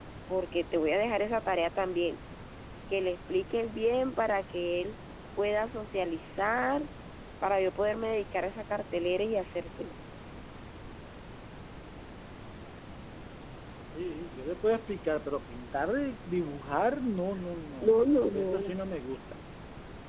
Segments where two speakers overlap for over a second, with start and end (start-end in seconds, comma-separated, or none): none